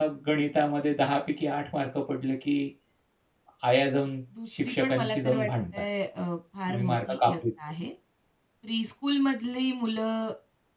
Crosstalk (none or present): present